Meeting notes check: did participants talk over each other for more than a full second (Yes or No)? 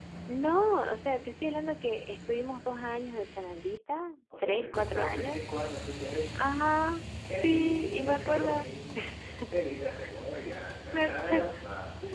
Yes